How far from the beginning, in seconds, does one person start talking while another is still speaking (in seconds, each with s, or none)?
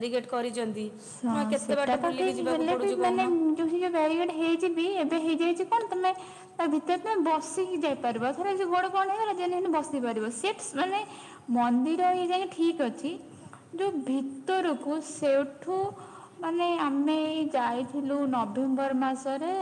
1.3 s